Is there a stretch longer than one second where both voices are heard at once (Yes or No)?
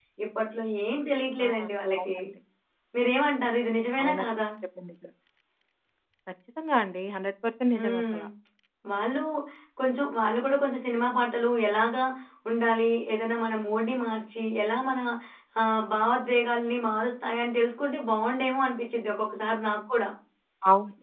No